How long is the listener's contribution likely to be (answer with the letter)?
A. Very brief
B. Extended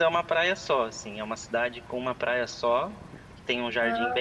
A